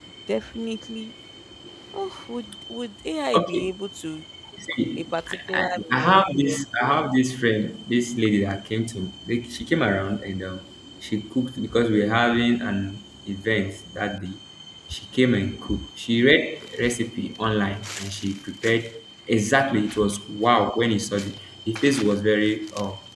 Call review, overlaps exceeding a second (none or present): present